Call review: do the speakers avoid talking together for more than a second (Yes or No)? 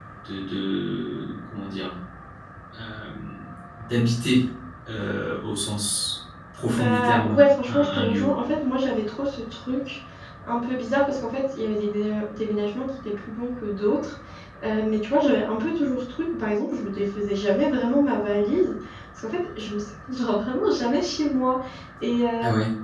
No